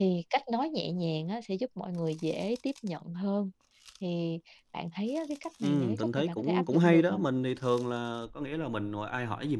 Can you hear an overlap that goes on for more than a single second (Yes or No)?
Yes